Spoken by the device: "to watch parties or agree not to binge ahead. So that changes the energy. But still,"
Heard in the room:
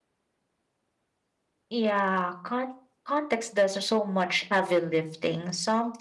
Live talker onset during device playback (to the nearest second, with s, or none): 2 s